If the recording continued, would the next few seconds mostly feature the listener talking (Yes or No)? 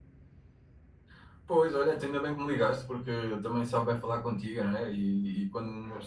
No